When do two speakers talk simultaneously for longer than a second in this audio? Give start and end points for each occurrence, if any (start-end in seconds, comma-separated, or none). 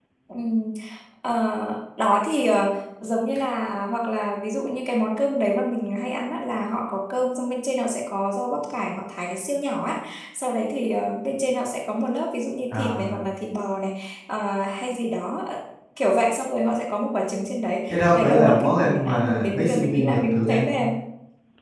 17.9-20.8